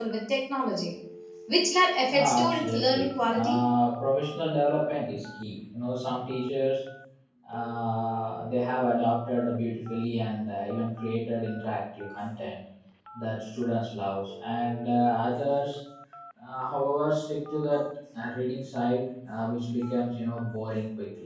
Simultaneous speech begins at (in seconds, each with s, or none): 2.1 s